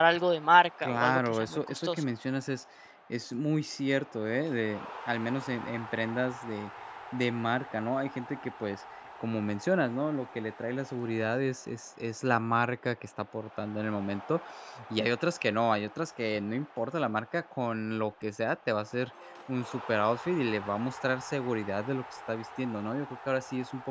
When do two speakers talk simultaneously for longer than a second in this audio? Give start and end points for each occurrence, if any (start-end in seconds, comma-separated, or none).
0.8-2.0